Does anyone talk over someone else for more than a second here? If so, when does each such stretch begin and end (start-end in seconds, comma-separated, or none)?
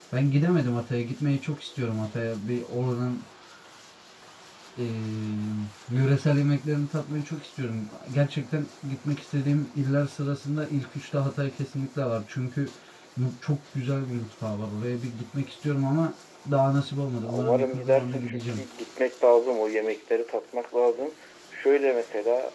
17.2-18.6